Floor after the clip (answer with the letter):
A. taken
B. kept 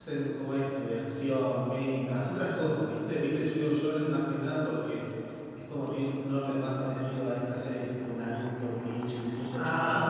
A